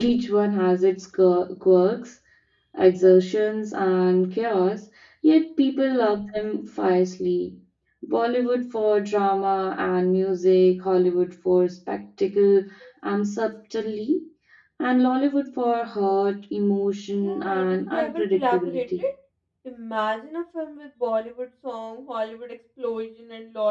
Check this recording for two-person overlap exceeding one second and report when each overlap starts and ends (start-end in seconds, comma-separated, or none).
17.2-19.0